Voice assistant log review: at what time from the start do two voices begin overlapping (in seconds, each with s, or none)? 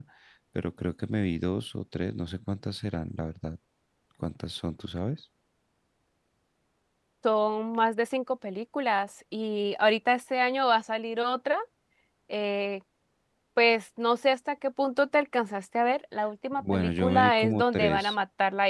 16.5 s